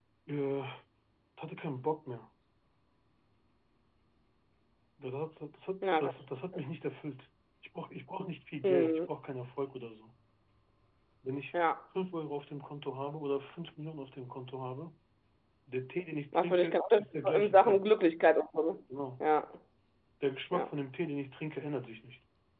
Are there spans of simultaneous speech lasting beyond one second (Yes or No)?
Yes